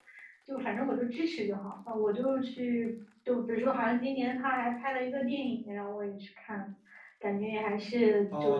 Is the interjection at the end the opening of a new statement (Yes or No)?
Yes